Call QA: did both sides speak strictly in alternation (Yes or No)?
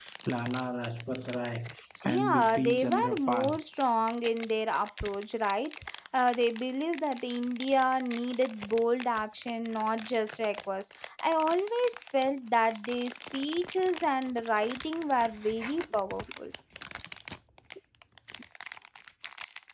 No